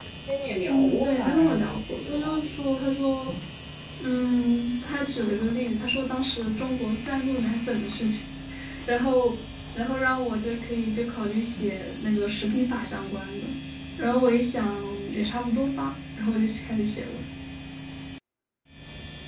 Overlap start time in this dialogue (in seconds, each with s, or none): 0.7 s